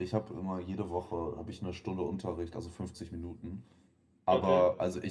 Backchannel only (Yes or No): Yes